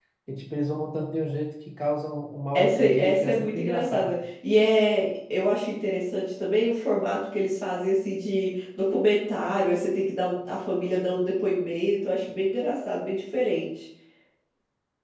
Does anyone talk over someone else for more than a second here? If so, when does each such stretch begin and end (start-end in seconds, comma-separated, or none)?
2.6-4.2